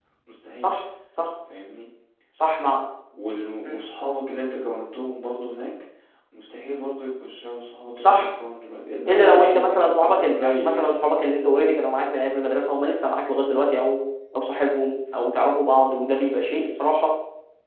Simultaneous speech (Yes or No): Yes